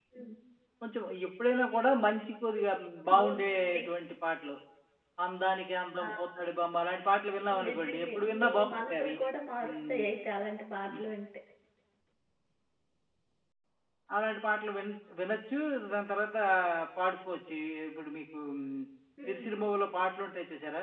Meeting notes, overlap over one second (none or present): present